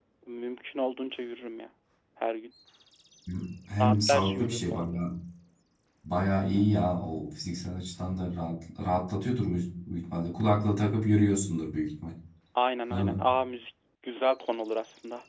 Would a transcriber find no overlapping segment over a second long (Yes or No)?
No